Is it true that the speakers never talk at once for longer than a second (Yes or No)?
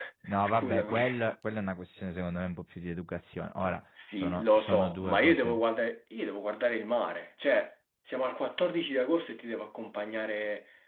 No